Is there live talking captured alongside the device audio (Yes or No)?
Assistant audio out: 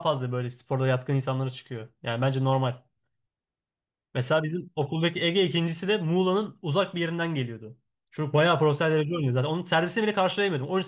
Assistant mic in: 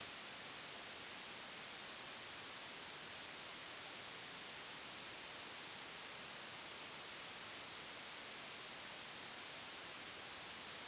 No